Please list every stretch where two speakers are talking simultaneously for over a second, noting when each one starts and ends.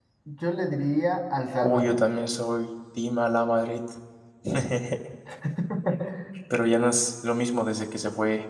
none

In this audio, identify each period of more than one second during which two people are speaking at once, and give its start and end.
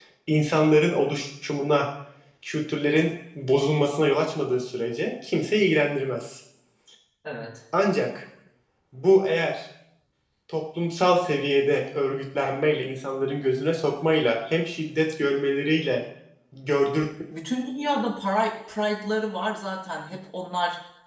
none

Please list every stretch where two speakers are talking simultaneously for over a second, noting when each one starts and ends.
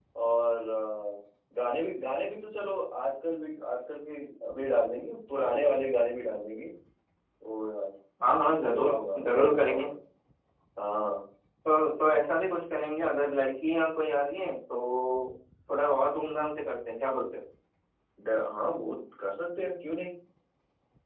8.7-9.9

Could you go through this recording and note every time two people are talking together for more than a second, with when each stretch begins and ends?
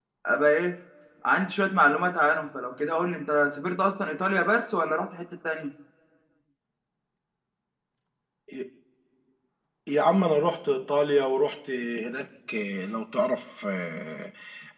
none

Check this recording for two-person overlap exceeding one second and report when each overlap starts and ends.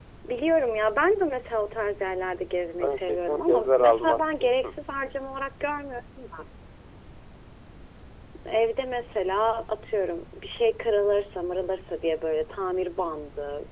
2.8-4.7

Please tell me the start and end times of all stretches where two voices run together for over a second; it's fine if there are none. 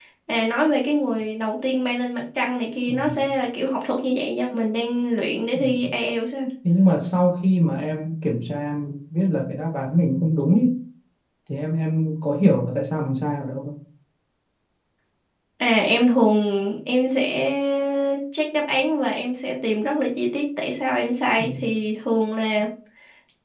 none

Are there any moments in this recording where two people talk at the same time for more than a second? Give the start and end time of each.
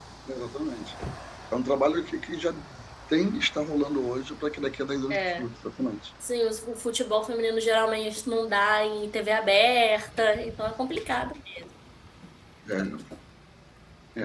none

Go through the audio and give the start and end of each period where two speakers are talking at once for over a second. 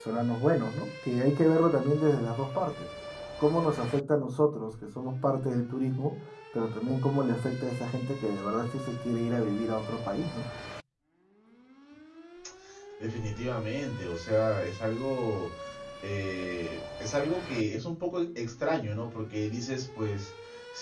none

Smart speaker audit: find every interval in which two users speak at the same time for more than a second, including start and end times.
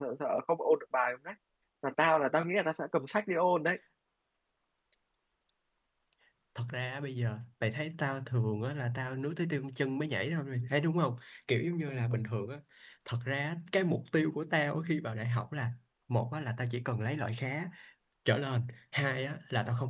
none

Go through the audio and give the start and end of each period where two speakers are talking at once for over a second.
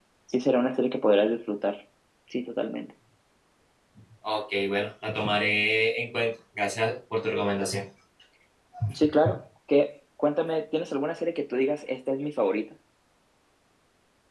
none

